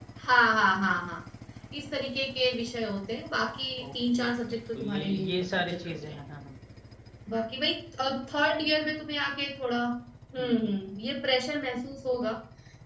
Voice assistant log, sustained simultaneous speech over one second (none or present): present